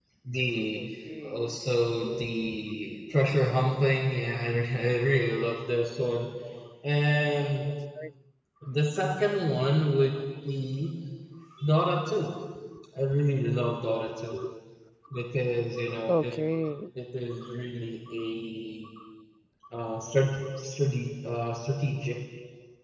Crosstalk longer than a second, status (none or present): none